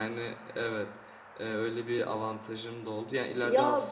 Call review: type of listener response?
listening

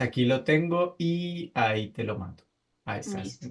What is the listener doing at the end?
taking over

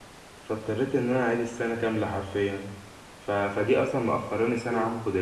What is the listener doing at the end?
listening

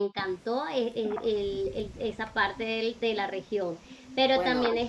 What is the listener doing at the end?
listening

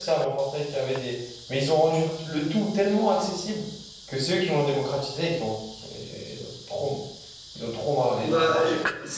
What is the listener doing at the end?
taking over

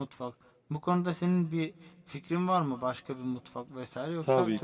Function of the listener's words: taking over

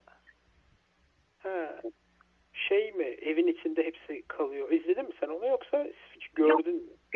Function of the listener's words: taking over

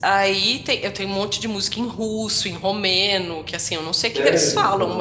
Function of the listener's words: listening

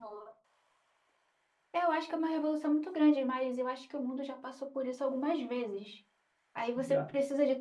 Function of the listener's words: listening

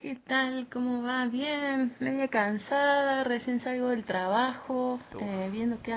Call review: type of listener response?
listening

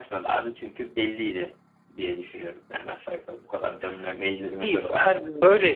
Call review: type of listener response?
taking over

